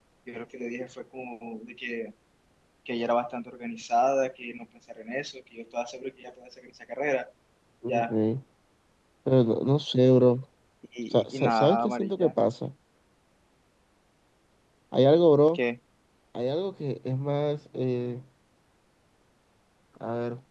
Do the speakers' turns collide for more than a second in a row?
Yes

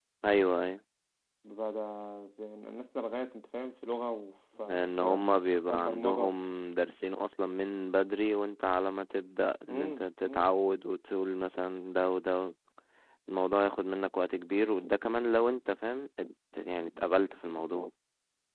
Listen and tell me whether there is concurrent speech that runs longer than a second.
Yes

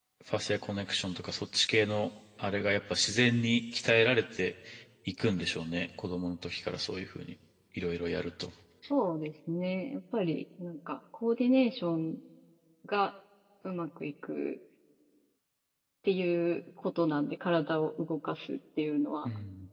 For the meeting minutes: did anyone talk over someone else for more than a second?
No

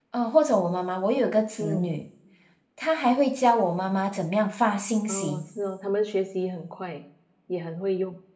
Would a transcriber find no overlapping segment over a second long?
Yes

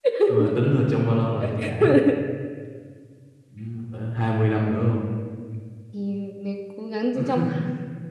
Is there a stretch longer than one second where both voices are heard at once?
No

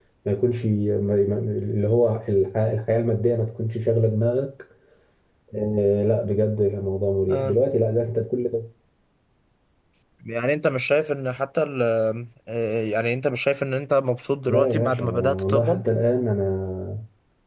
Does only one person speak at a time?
No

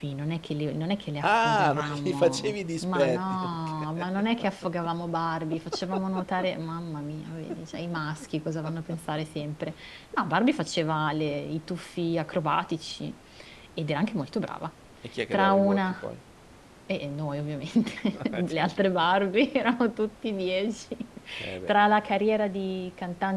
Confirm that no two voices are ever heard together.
No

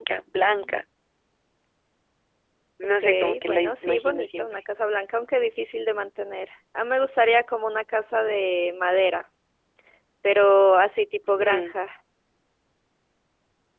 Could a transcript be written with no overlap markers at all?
No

